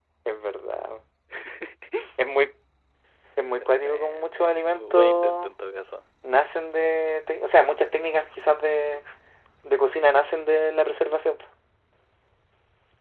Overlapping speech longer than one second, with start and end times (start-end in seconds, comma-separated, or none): 3.6-5.5